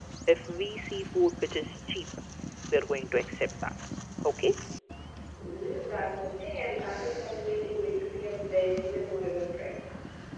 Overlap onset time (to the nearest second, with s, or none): none